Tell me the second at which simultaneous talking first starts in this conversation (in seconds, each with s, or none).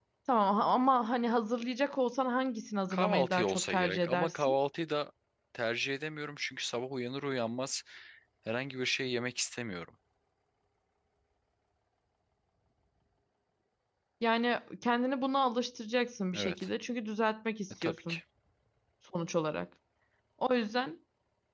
2.9 s